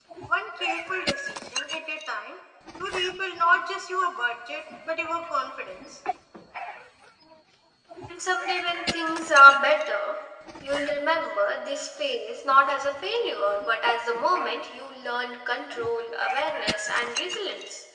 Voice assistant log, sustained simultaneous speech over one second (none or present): none